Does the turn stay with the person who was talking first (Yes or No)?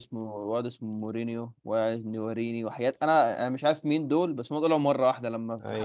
Yes